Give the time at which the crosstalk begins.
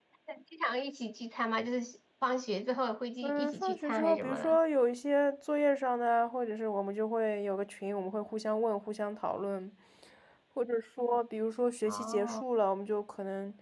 3.2 s

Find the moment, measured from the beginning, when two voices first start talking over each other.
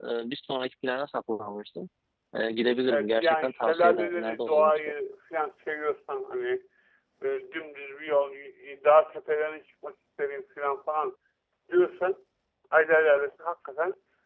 2.9 s

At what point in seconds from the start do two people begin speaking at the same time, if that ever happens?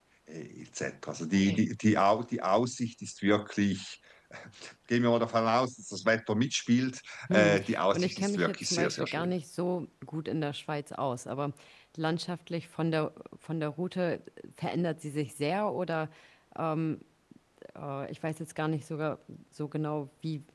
7.3 s

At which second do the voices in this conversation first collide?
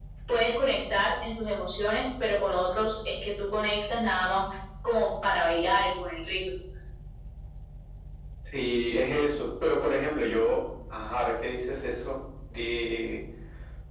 none

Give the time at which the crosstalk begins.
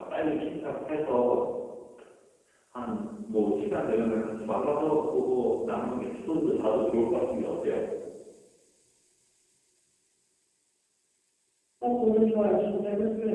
none

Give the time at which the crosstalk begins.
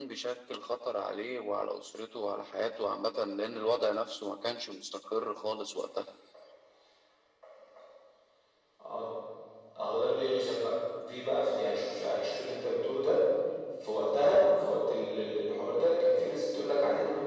none

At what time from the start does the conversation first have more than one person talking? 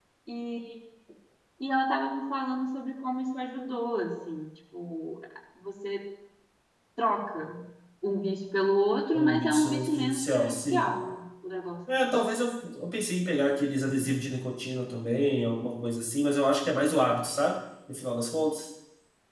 9.1 s

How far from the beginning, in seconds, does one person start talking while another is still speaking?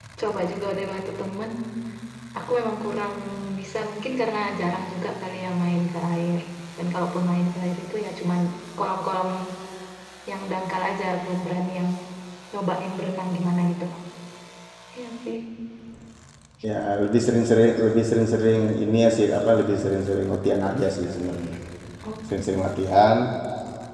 none

